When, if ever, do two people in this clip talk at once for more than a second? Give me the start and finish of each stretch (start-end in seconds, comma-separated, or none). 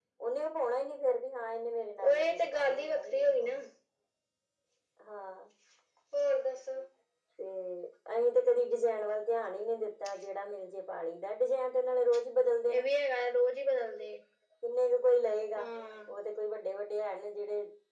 2.0-3.6